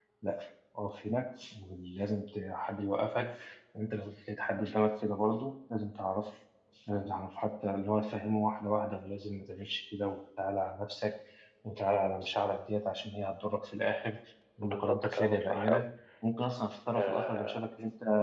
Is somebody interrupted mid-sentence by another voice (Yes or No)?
Yes